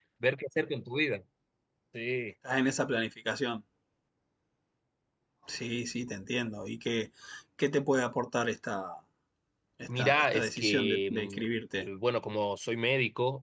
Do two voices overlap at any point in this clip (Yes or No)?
Yes